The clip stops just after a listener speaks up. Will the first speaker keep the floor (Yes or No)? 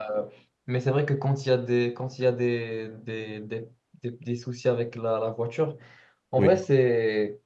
Yes